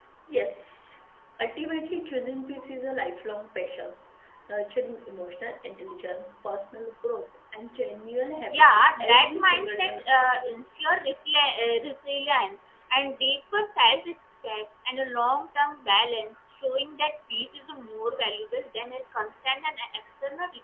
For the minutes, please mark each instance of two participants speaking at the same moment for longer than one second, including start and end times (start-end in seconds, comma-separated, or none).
8.5-10.6